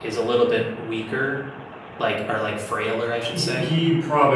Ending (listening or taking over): taking over